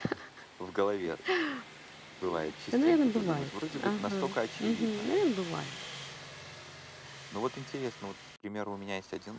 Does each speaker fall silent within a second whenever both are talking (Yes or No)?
No